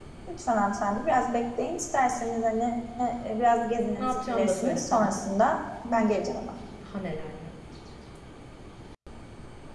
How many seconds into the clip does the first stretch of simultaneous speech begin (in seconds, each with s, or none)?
4.0 s